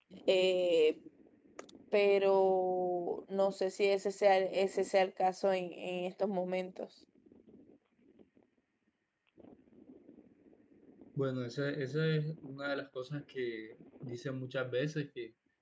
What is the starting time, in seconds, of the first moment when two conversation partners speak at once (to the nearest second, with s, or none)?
none